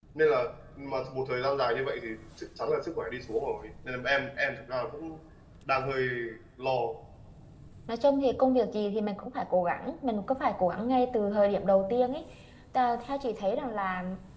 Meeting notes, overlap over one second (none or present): none